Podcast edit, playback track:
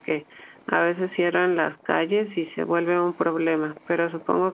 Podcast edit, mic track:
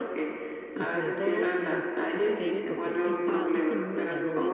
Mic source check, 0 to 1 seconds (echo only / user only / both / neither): both